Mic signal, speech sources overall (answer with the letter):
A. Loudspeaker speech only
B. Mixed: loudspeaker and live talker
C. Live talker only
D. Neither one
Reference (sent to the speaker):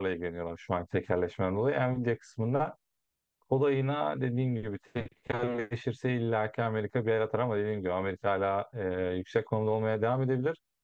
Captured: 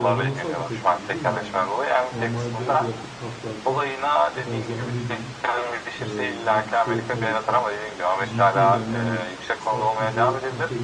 B